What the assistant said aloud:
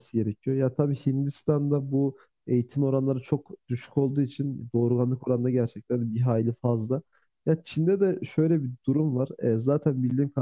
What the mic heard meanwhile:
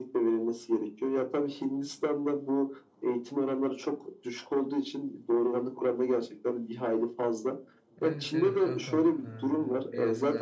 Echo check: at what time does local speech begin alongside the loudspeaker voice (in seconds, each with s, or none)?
8.0 s